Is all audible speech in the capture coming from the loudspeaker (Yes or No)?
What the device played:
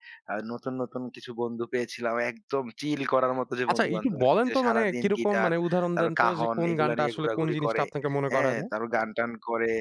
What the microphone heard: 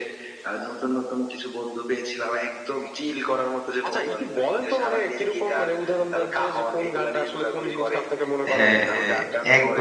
No